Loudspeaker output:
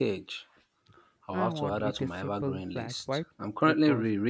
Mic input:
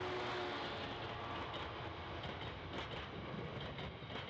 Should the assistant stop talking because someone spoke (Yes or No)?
No